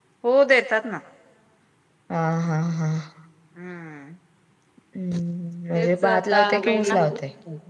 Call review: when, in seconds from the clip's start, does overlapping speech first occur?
5.8 s

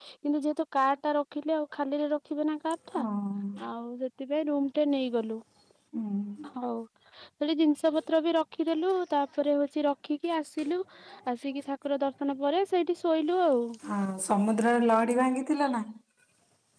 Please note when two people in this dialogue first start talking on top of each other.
none

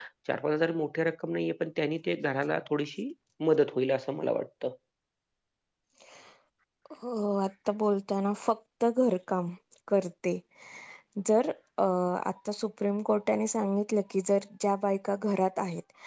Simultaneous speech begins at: none

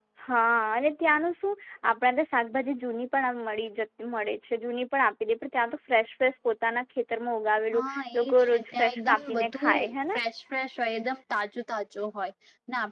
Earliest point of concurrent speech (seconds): 7.7 s

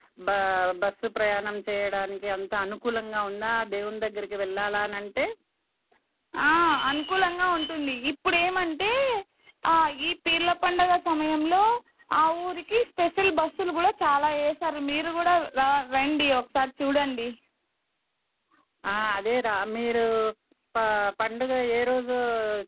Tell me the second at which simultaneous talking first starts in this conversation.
none

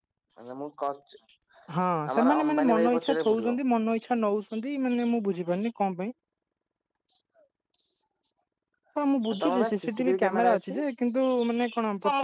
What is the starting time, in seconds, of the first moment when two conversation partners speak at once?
2.2 s

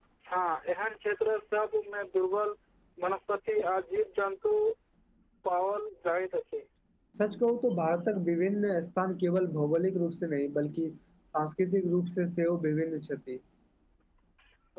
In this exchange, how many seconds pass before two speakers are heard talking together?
none

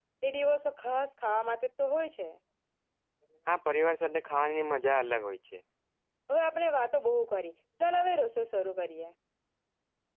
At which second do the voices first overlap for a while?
none

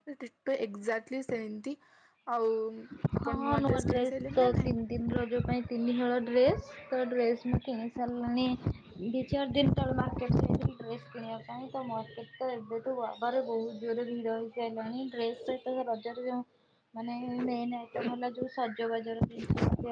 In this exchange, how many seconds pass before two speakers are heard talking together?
3.2 s

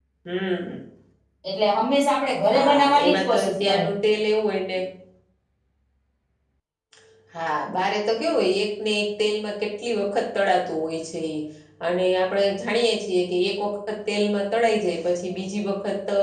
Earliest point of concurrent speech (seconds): 2.5 s

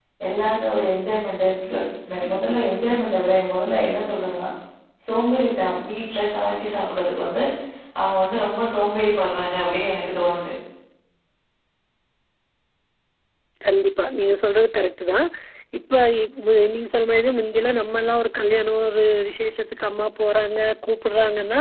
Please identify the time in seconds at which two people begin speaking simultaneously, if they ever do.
none

